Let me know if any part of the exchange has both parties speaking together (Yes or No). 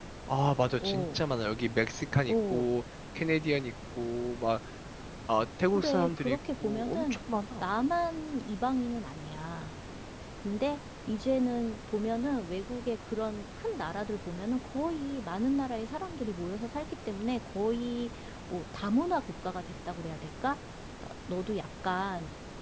Yes